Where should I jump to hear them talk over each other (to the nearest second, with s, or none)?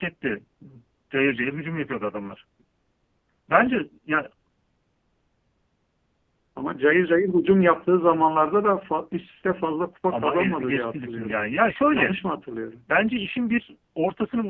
10 s